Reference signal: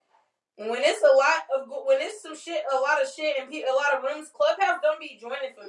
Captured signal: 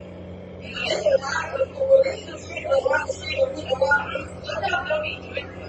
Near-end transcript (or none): none